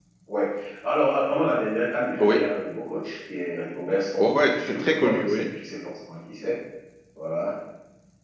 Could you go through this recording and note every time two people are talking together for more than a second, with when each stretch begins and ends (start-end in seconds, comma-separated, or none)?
4.2-5.5